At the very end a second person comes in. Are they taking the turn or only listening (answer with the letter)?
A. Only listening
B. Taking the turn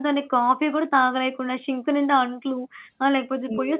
A